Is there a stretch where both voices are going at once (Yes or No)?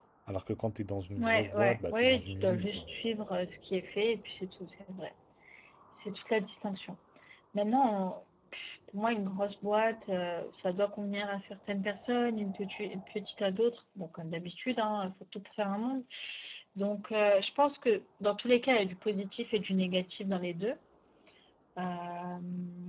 Yes